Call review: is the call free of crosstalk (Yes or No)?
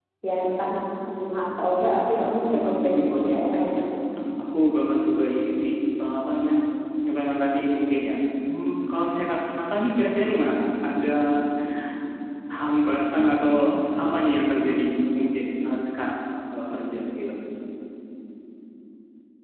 No